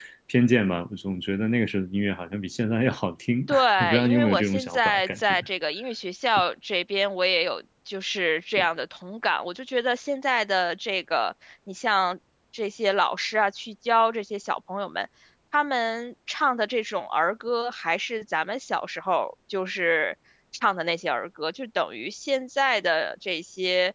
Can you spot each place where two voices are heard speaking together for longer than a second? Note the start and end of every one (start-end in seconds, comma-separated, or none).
3.5-5.4